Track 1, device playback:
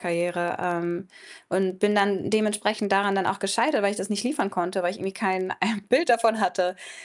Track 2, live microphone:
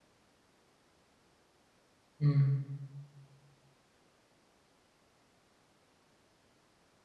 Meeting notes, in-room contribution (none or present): present